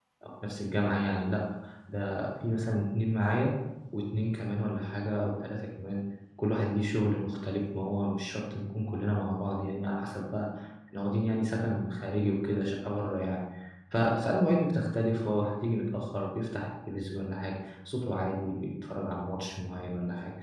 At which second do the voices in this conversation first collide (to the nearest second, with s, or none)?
none